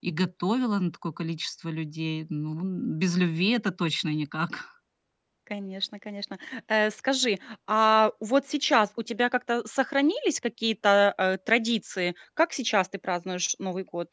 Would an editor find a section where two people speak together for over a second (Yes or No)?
No